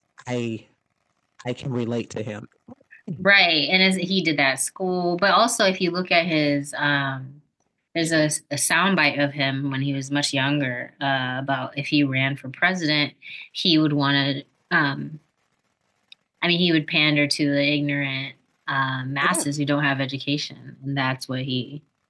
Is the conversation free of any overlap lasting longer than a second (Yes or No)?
Yes